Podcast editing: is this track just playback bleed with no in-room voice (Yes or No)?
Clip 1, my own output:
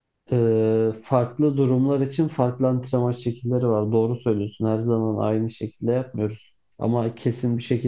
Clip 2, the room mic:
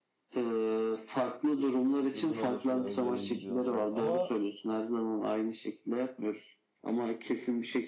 No